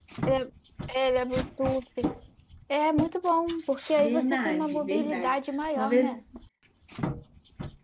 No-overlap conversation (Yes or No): No